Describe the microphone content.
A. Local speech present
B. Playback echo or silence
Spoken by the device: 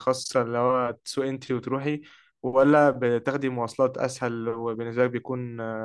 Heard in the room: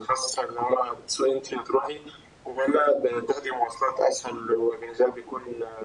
B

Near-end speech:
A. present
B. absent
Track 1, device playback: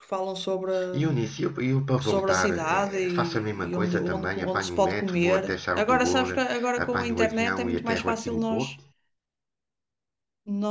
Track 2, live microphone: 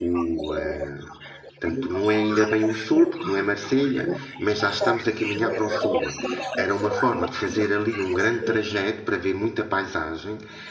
A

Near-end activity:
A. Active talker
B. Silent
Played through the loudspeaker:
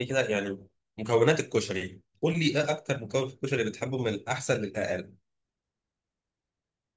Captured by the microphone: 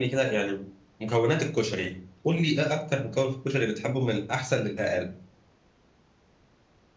B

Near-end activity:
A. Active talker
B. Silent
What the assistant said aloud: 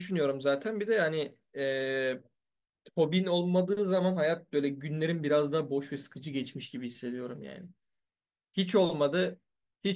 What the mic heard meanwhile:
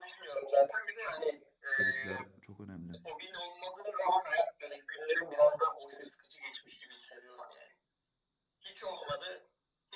A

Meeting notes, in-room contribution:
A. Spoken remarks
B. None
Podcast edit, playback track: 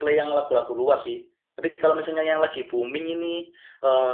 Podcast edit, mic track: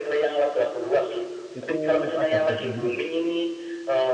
A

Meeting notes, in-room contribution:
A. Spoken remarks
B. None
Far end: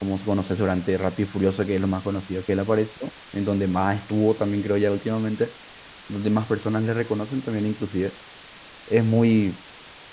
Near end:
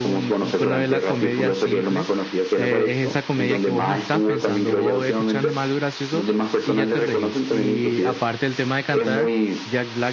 A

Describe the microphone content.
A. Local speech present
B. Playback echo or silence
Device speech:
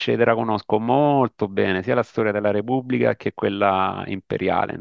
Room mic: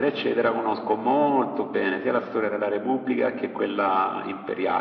B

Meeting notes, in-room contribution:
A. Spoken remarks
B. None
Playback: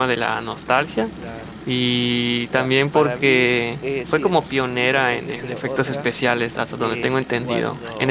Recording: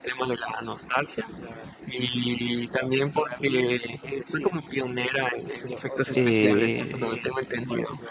A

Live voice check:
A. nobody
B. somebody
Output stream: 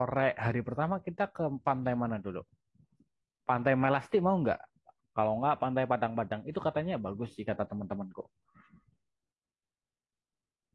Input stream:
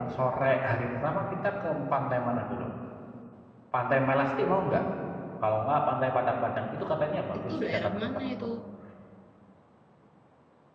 B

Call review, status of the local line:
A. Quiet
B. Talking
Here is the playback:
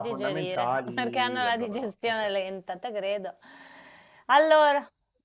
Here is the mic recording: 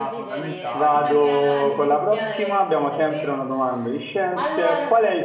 B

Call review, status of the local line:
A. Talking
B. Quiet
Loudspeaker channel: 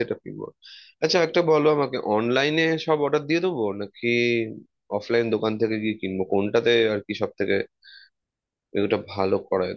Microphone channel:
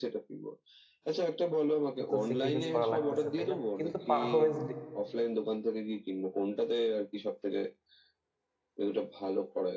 A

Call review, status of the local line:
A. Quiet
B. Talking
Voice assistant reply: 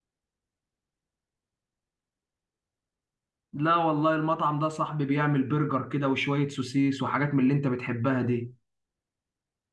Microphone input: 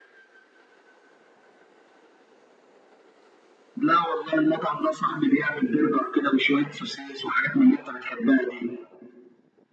A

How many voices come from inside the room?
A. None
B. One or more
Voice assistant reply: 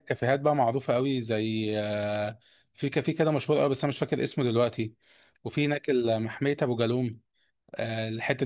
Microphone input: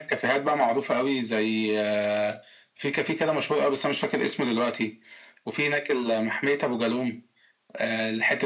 A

